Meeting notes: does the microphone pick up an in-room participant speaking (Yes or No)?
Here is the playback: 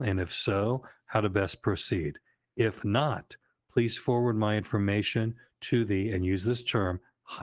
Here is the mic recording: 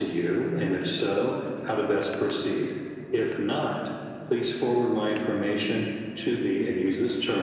No